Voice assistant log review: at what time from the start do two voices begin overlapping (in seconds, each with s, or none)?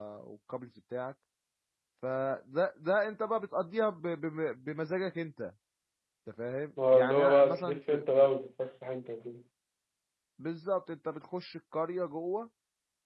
6.9 s